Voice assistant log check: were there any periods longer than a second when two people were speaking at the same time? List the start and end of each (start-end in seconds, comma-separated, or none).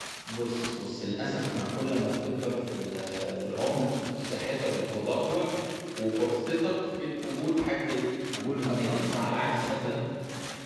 8.5-10.0